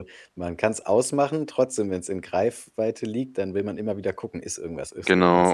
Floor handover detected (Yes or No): Yes